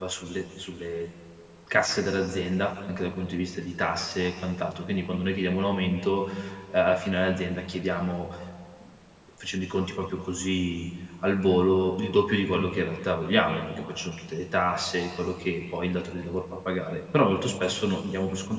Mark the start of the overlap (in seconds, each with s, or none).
none